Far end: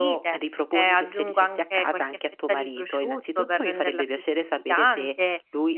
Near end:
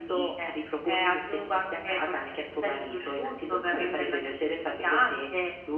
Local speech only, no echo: none

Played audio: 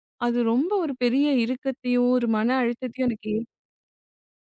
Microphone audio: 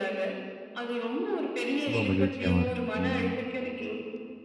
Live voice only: ரொம்ப மகிழ்ச்சியாவும் இருக்கும். ம்.

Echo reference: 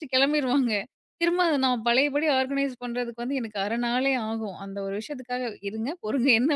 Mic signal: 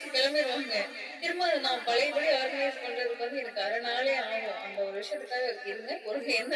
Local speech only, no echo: none

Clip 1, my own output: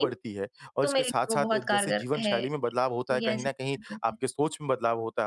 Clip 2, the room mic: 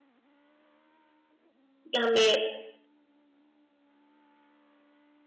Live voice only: कि हमने

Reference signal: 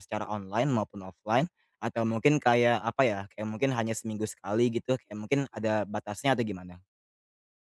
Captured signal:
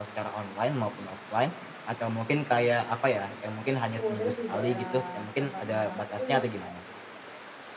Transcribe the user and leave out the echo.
kurir di daerah tempat tinggal aku tuh yang

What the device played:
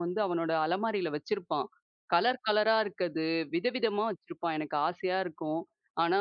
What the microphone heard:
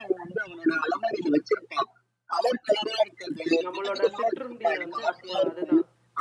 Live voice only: நம்மளோட சிற்றுண்டிய வந்து அப்ப அதுதான்.

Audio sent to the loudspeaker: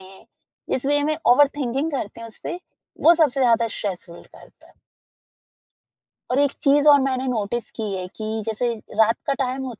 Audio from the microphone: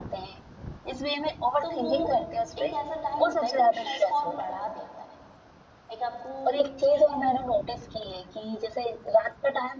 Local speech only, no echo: तो वो एक ऐसा टाइम होता है कि वो स्ट्रेस को और बढ़ा देता है। एक आपको स्लीप

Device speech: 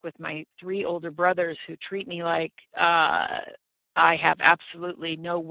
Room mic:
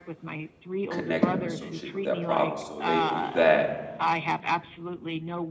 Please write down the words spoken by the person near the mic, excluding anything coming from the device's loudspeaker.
connected or associated with that problem so they know that,

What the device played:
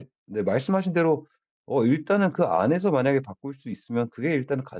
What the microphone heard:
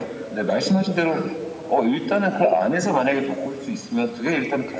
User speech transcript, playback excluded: none

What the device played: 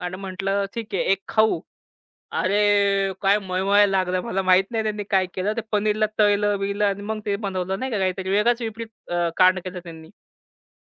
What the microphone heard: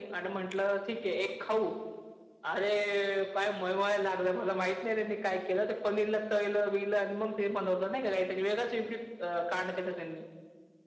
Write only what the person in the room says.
none

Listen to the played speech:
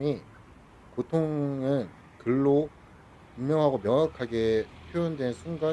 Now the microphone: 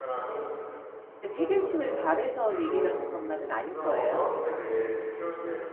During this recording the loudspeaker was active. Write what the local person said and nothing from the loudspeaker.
얘기는 해결책을 바래서 얘기를 하는 것만은 아닐 거예요.

